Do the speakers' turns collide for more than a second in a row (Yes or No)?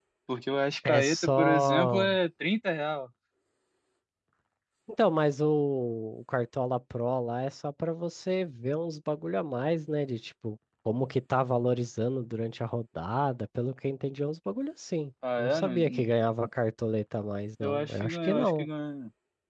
Yes